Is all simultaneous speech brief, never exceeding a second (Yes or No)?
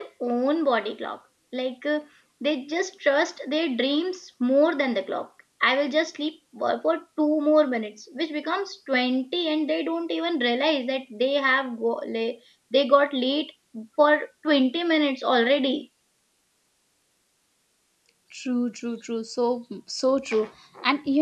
Yes